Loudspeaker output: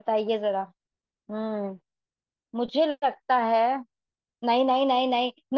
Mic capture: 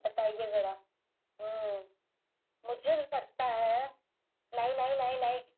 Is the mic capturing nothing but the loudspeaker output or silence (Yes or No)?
Yes